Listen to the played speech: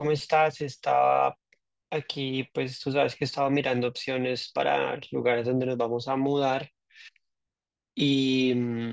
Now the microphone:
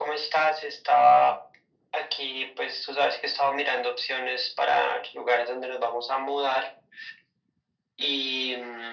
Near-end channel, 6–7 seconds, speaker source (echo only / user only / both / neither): echo only